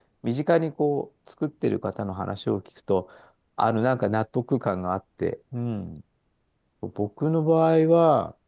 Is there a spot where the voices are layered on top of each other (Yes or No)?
No